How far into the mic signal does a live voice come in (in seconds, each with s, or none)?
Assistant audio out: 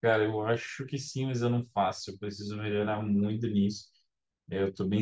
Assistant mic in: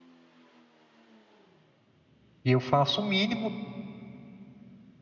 2.4 s